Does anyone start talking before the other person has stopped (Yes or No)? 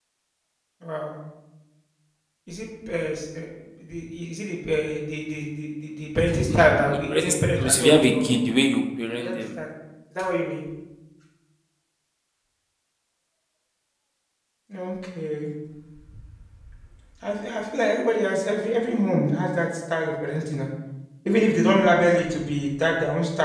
Yes